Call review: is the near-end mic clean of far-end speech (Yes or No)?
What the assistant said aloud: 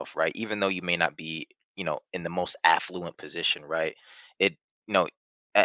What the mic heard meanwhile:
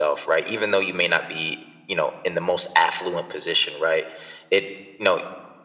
No